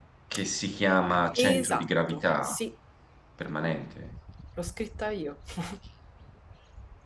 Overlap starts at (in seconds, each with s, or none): 1.4 s